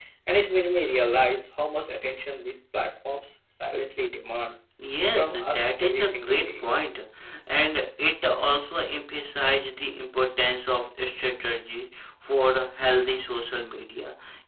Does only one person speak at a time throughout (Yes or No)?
No